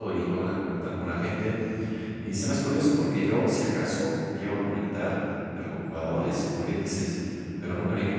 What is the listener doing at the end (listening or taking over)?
listening